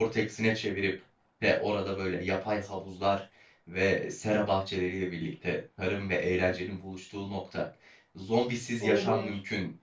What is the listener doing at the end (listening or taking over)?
listening